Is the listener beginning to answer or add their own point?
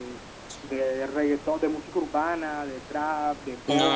Yes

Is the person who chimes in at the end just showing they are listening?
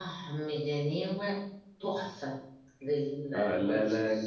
No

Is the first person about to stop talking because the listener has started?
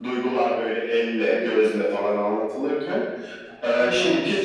No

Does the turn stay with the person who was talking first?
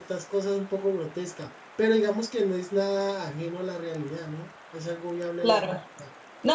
No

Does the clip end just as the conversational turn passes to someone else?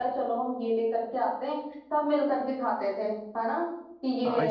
Yes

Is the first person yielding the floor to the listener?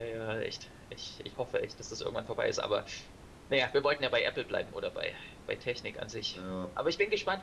No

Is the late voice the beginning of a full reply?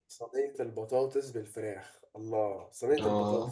No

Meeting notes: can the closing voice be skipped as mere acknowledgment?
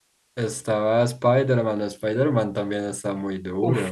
No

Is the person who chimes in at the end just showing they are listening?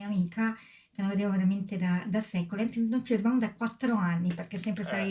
Yes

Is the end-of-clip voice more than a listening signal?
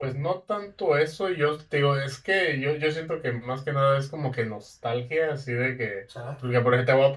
No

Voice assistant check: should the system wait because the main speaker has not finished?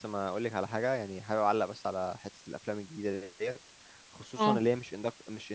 Yes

